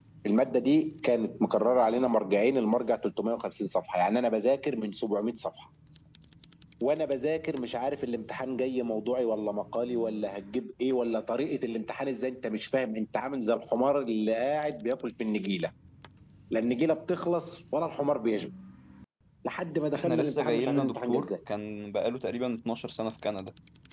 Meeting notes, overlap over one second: present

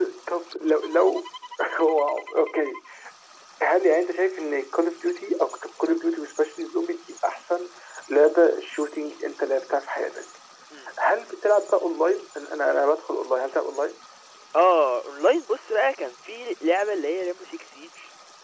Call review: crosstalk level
none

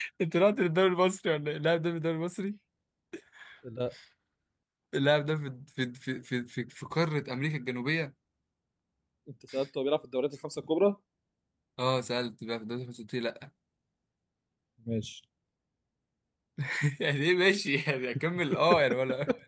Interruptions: none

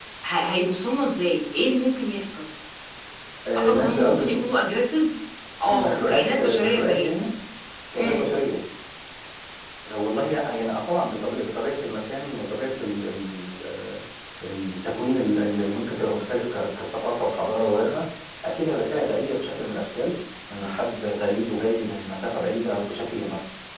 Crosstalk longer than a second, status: present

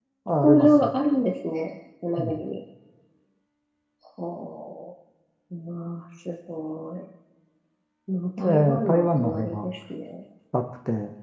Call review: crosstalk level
present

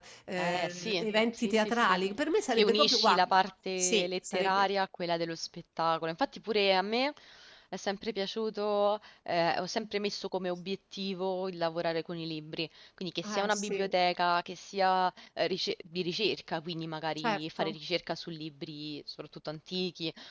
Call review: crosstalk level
present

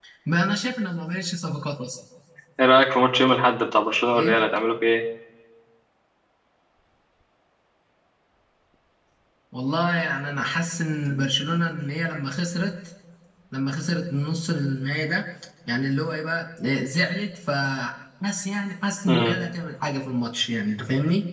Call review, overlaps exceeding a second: none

